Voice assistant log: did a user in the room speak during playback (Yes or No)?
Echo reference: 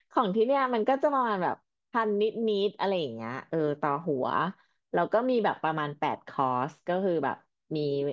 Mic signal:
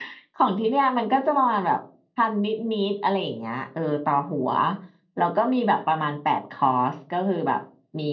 No